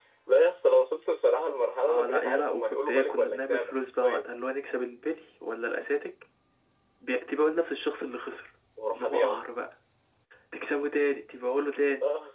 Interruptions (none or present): present